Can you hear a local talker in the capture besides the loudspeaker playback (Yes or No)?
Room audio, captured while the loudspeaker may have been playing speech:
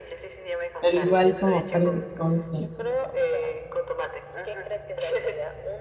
Yes